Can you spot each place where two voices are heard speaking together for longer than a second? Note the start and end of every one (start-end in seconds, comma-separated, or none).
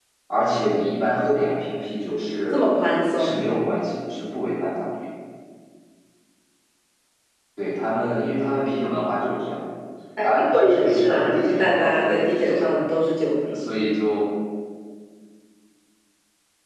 10.2-12.8